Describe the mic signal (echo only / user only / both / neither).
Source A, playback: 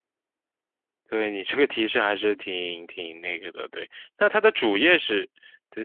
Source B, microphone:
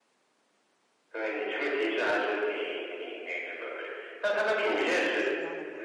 both